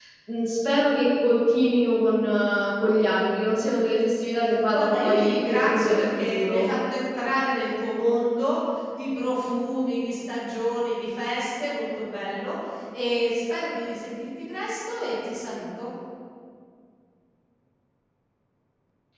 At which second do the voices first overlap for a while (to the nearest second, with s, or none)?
5 s